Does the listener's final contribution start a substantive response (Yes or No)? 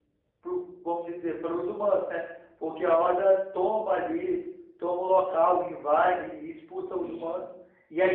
Yes